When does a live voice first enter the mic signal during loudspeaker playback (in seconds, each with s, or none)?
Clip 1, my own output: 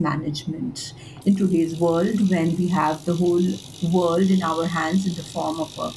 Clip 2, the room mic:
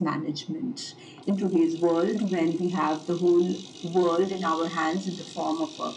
none